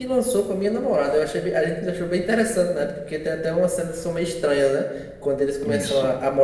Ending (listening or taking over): listening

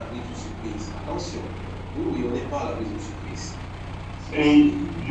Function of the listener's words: taking over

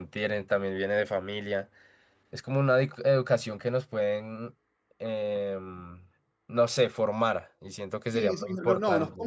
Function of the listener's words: taking over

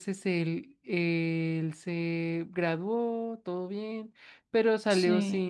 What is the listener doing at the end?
listening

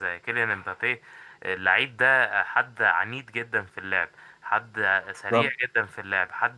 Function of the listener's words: listening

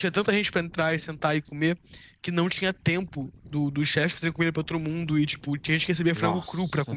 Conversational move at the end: taking over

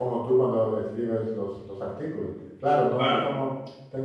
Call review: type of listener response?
listening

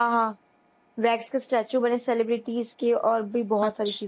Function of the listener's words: taking over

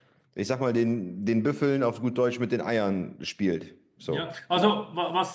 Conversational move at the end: taking over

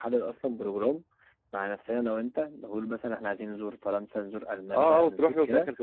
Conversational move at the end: taking over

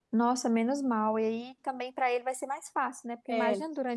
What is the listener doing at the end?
listening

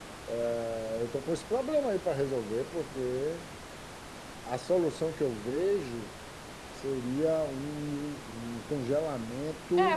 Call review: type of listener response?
taking over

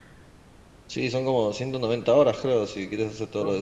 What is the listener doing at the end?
taking over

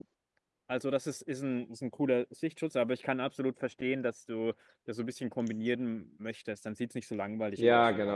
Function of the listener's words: taking over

